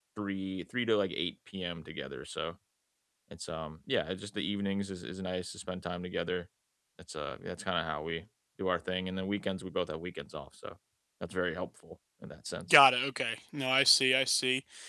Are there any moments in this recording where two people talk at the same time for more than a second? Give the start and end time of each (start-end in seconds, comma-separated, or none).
none